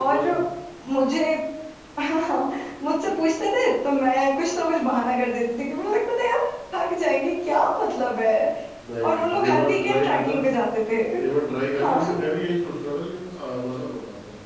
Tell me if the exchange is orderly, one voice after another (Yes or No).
No